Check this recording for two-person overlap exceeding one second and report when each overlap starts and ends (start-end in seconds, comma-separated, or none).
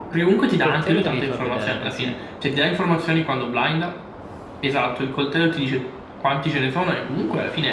0.6-2.1